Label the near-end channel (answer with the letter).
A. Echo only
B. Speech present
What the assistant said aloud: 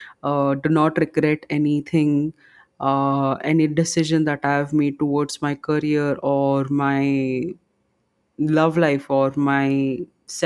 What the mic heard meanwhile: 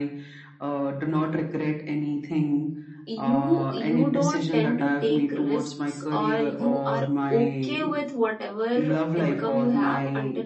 B